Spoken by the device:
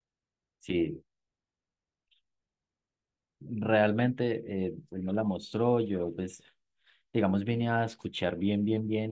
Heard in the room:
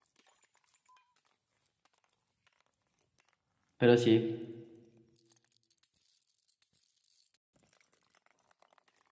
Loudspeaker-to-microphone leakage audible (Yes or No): No